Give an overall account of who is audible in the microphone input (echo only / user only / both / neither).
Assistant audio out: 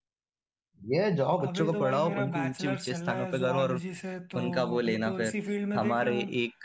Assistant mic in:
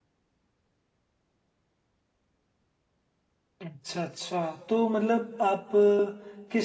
user only